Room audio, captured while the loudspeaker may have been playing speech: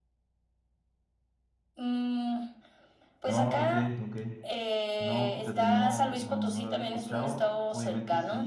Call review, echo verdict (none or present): present